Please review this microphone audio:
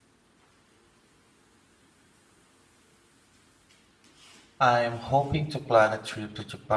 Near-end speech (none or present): present